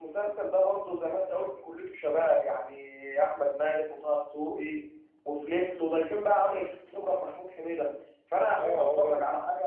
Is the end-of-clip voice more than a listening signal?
Yes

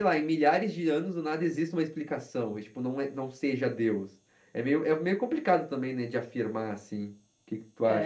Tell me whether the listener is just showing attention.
No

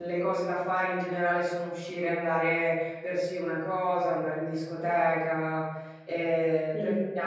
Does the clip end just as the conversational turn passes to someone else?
No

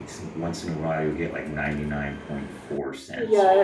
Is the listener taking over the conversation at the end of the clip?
Yes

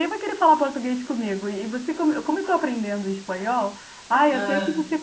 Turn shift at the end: No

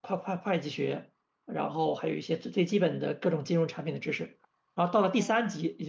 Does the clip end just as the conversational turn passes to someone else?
No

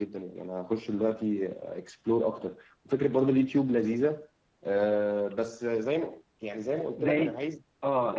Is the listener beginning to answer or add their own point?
Yes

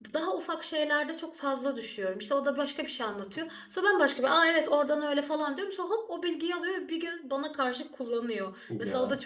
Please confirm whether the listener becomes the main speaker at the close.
No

